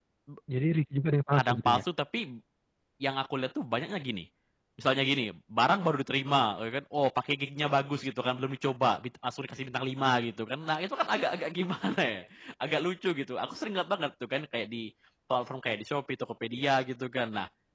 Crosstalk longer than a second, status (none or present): none